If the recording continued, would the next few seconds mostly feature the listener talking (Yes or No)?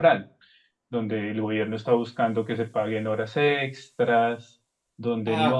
Yes